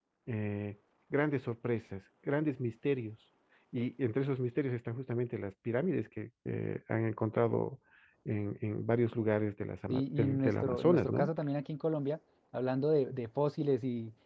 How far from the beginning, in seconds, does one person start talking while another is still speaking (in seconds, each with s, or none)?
9.9 s